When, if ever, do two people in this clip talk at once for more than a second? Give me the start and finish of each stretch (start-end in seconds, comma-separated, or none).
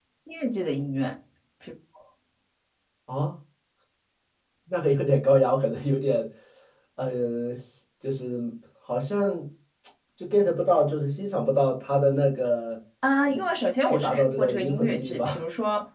13.9-15.3